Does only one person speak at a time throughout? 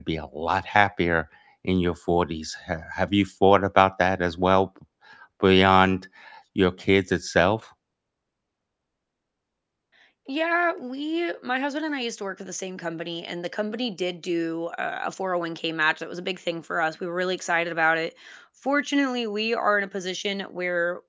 Yes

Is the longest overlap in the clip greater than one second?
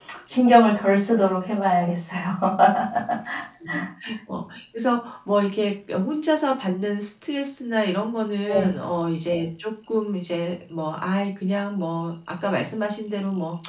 No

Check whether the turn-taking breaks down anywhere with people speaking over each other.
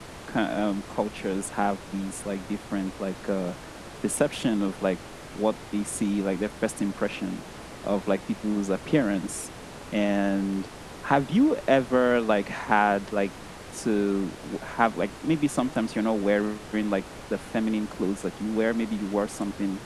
No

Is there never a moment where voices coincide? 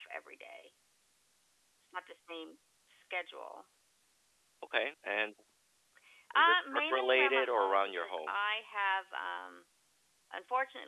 No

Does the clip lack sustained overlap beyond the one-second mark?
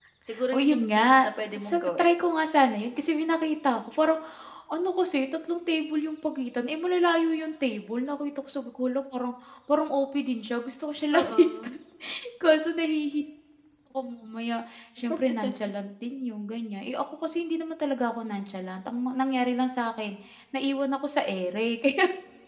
No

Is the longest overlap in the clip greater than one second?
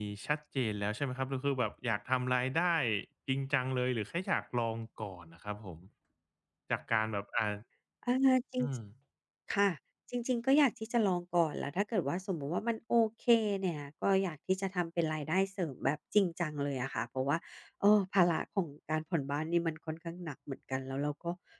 No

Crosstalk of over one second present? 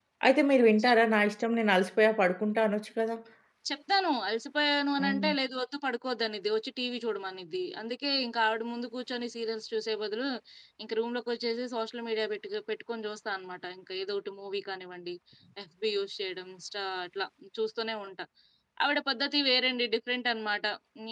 No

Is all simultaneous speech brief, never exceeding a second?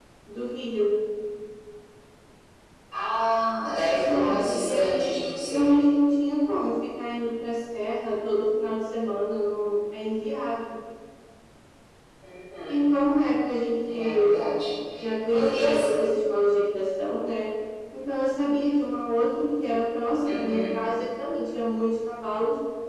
No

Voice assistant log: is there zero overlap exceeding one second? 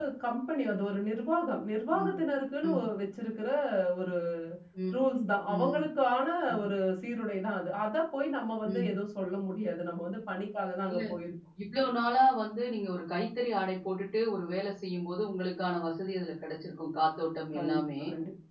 Yes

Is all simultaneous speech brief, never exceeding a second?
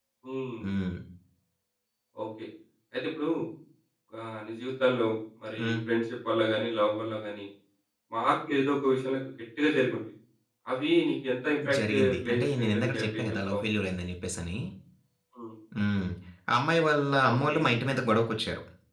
No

